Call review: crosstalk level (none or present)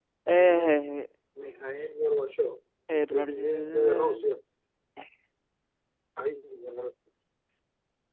present